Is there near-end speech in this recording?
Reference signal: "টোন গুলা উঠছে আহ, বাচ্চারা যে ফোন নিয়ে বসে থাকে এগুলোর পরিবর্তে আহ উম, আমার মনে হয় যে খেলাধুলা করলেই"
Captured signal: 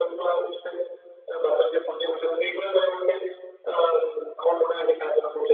No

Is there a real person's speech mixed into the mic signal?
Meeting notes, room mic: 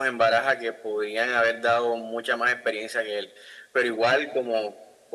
No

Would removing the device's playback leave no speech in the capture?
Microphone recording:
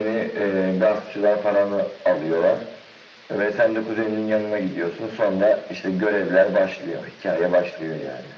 Yes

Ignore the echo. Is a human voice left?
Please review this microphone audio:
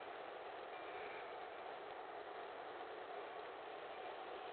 No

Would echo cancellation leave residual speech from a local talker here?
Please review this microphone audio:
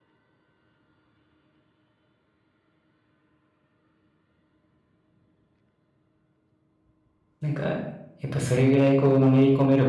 Yes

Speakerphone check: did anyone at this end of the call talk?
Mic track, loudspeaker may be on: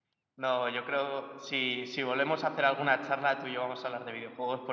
No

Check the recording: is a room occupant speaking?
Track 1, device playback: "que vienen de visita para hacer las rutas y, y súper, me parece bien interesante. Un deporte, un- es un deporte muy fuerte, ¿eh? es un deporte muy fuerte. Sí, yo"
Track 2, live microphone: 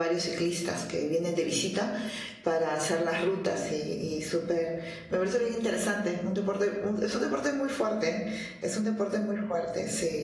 No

